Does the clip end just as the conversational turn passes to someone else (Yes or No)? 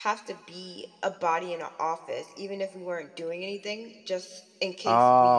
No